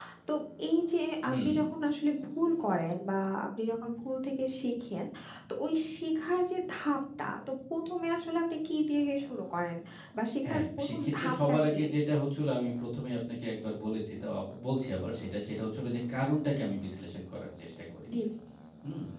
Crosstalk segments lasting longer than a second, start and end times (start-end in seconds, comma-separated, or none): 10.4-11.8